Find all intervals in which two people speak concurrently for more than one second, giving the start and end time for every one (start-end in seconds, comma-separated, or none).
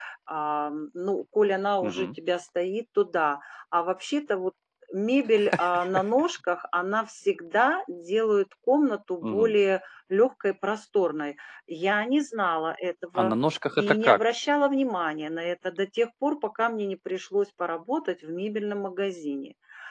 none